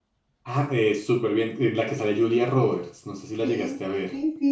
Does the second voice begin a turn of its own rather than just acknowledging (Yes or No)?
Yes